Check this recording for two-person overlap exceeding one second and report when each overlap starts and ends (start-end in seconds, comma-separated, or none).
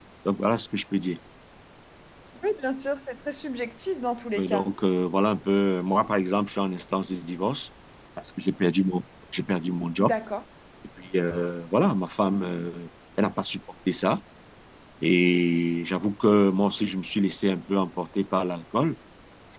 none